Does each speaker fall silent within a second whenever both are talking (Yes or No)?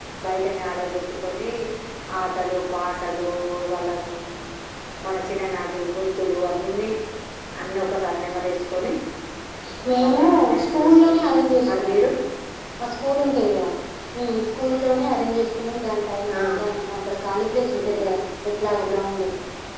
No